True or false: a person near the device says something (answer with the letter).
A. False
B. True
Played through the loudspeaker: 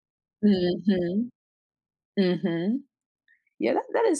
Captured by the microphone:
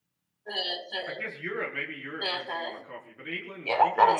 B